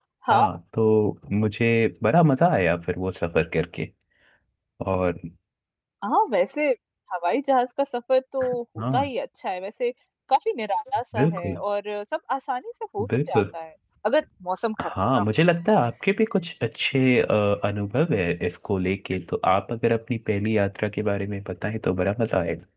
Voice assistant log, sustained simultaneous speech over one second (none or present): none